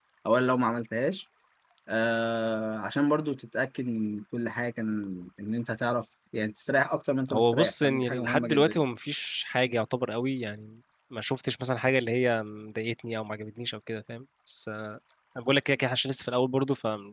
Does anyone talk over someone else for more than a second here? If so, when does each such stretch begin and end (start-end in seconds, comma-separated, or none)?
7.3-8.8